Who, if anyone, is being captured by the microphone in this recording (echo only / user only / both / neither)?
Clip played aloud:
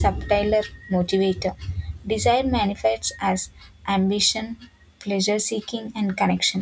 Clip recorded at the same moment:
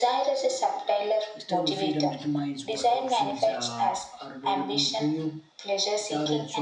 both